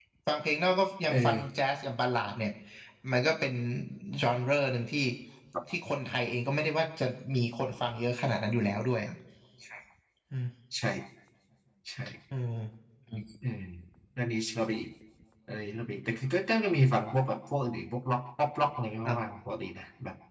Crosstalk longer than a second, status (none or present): none